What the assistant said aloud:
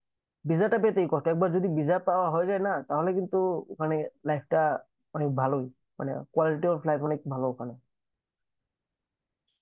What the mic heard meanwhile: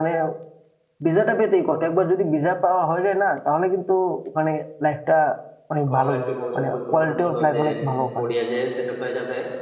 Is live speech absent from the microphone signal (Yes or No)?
No